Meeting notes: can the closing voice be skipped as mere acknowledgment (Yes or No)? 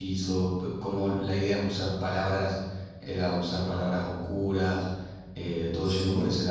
Yes